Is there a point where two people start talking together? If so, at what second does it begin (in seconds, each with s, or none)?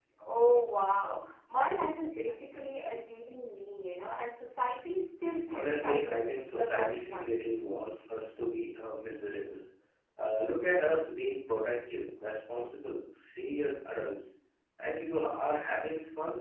5.5 s